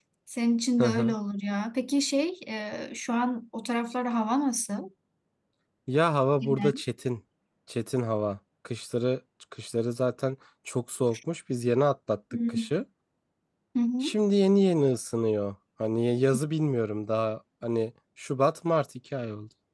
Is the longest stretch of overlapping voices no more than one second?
Yes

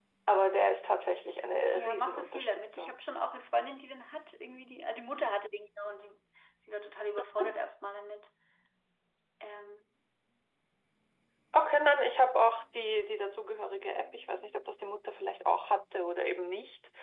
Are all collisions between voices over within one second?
No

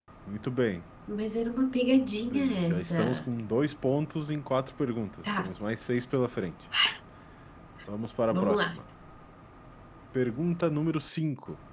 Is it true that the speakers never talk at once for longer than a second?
No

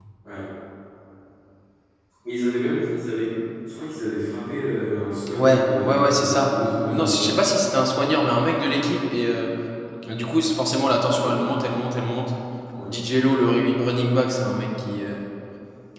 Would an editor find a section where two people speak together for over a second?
Yes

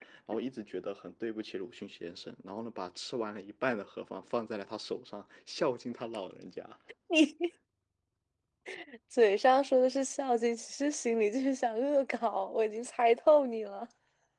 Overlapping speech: No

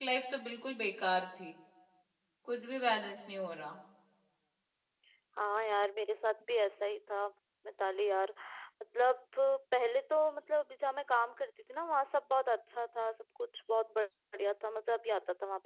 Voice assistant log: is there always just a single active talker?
Yes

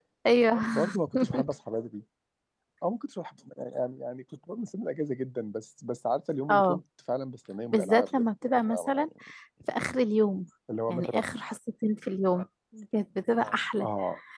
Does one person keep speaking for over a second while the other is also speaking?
Yes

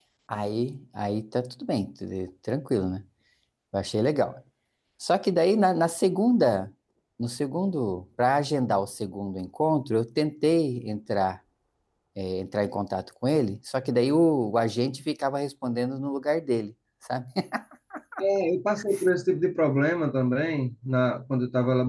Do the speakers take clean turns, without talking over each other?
Yes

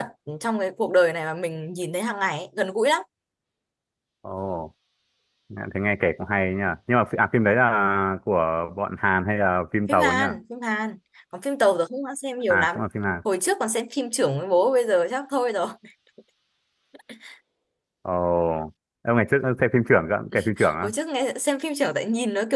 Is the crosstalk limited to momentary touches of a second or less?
Yes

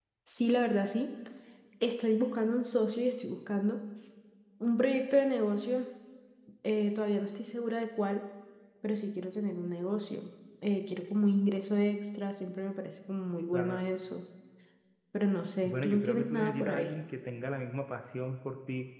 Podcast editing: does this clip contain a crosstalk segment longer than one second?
Yes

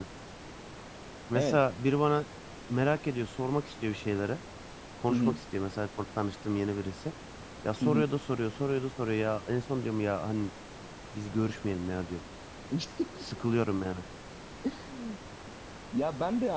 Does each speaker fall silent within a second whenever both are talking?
Yes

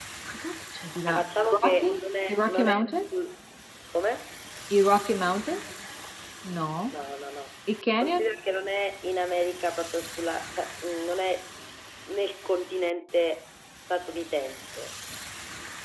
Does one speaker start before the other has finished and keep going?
Yes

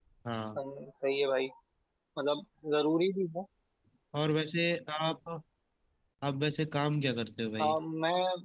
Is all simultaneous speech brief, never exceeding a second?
Yes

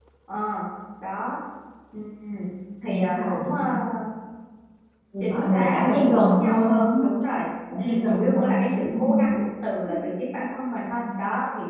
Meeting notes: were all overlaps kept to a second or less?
No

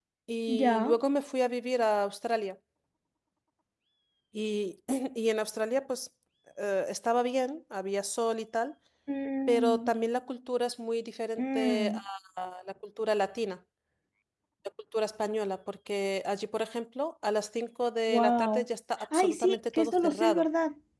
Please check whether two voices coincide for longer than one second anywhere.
Yes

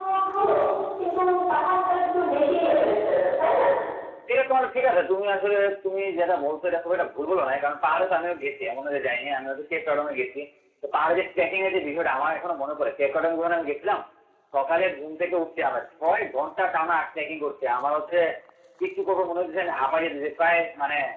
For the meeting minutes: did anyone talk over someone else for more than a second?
No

